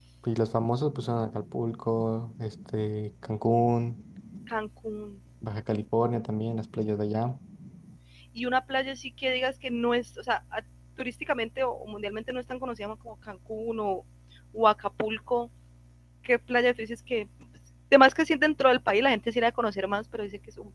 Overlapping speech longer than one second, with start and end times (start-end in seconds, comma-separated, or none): none